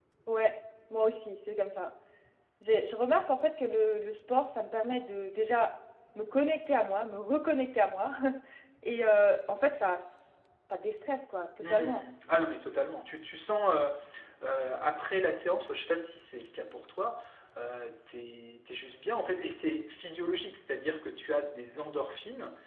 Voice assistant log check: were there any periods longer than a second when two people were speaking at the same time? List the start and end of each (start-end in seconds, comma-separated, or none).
none